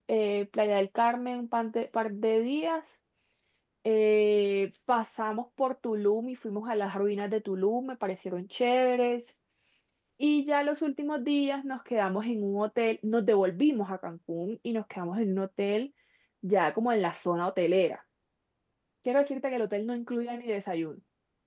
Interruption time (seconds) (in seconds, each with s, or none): none